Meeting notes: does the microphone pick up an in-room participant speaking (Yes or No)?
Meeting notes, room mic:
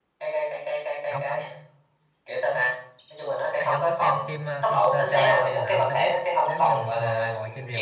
Yes